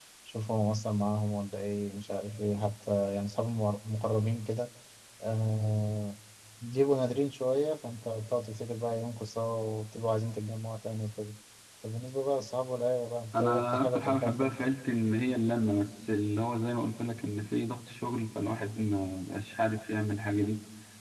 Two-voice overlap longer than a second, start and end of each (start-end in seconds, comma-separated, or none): 13.3-14.7